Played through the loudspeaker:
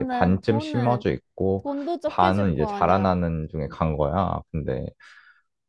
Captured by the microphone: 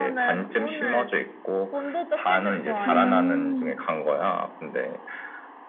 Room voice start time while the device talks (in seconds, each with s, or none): 2.9 s